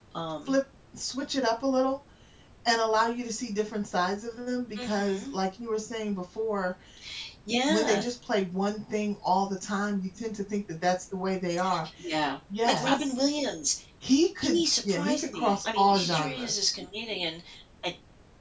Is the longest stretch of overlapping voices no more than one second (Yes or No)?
No